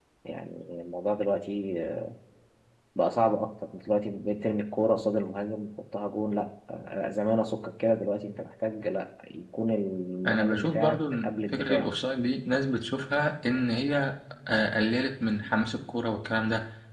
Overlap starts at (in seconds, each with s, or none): 10.2 s